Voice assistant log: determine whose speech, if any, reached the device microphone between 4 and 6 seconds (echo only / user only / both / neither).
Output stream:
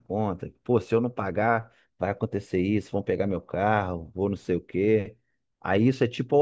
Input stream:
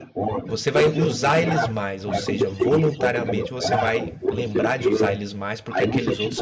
both